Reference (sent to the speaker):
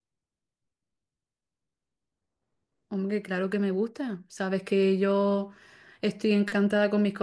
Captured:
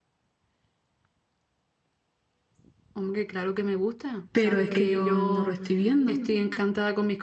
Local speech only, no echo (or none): pero es que yo no lo estoy viendo.